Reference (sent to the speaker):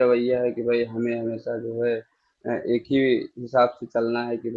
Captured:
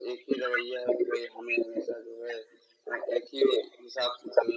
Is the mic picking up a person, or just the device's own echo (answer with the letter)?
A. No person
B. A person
A